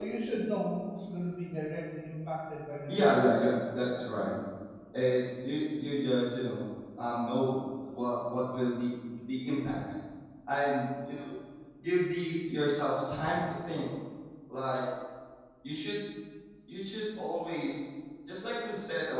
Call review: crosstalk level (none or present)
present